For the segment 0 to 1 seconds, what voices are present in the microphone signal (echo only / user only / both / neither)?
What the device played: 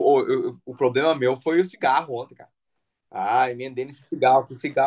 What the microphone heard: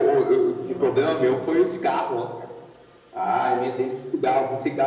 both